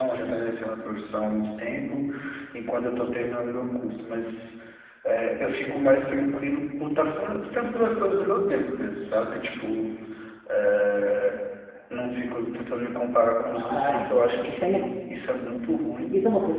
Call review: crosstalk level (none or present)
present